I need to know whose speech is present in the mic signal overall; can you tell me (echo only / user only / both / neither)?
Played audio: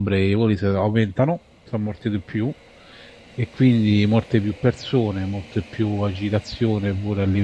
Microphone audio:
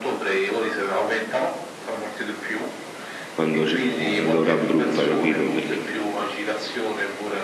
both